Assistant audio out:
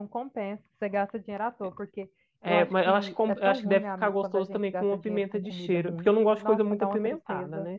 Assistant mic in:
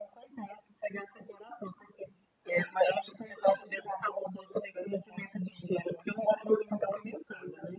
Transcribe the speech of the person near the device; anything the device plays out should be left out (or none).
none